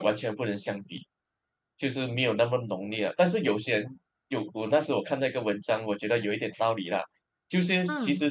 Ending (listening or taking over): listening